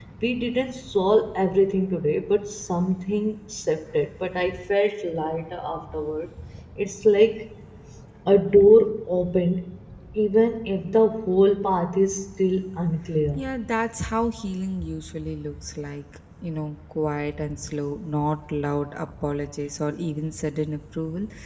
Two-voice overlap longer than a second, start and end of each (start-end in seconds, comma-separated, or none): none